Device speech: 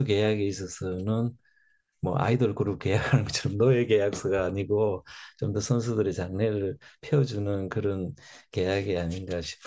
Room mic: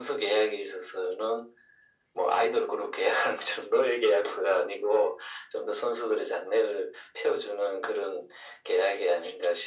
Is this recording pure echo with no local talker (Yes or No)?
Yes